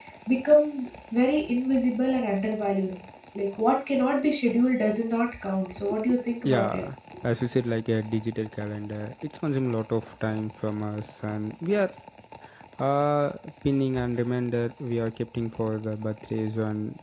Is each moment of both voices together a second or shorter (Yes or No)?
Yes